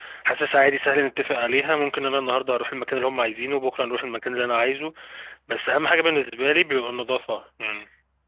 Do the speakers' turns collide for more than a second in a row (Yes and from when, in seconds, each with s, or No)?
No